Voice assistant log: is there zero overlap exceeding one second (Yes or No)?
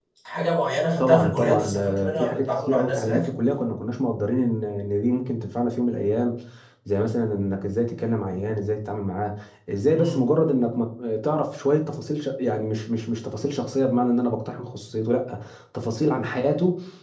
No